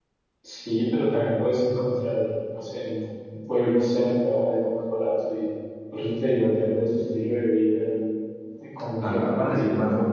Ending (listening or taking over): taking over